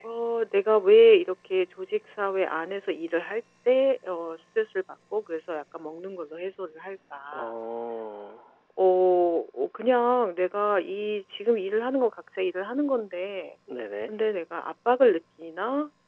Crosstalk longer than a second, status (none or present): none